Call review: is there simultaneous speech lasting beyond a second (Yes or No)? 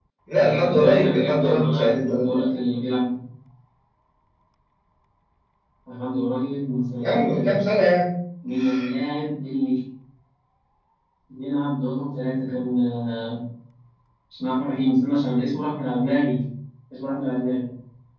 Yes